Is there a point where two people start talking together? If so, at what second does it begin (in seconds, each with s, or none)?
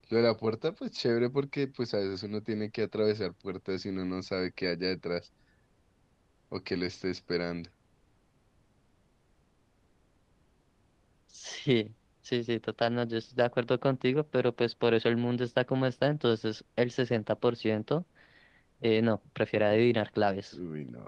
none